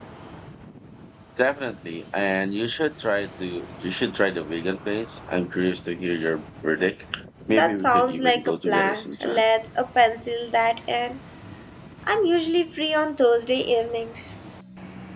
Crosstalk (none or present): present